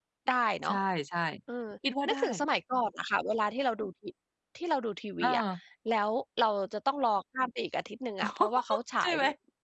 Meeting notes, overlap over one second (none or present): none